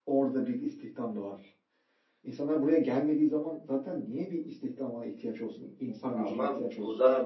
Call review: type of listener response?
taking over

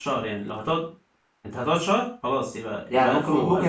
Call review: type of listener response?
taking over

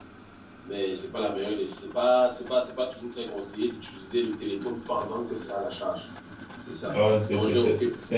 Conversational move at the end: taking over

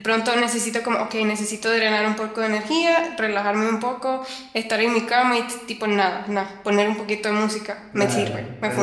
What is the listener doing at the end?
taking over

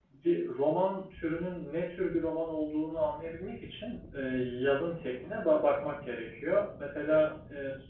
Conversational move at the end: listening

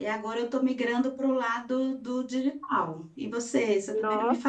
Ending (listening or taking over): taking over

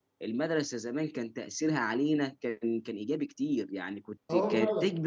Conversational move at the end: listening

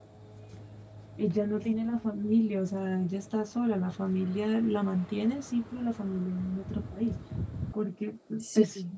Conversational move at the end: listening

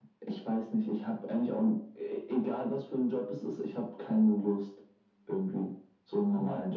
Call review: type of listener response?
listening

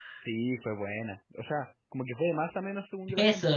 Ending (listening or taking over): taking over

